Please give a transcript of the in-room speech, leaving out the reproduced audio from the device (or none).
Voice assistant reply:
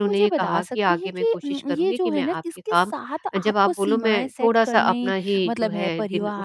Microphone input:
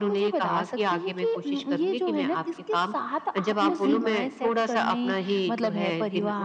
हुँ, हुँ।